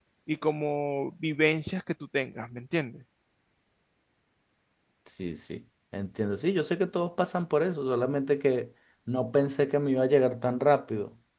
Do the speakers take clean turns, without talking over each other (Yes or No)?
Yes